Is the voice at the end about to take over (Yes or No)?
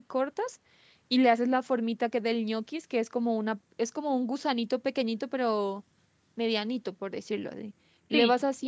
No